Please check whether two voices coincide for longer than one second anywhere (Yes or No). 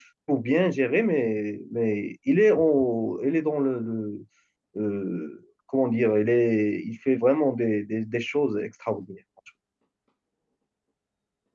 No